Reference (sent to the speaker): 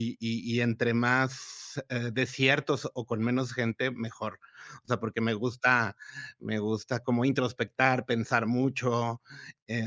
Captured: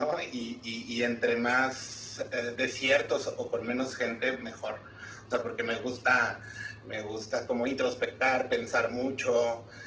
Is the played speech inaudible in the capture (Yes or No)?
No